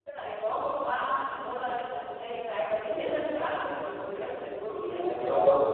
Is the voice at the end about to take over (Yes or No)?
Yes